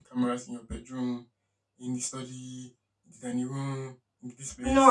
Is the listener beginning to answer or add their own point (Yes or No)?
Yes